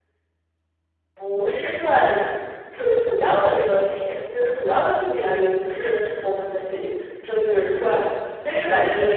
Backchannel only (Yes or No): Yes